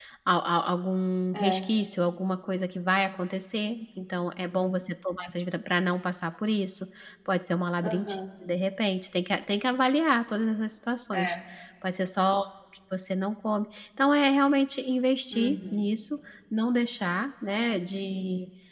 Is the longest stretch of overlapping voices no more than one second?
Yes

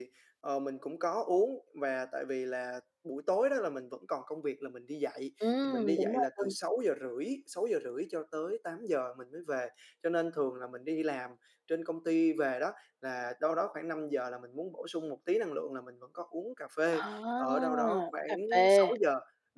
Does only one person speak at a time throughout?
No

